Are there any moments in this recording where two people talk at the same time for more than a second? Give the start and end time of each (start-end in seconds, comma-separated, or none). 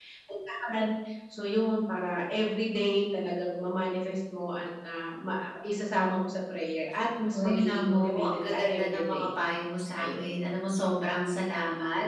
7.3-9.3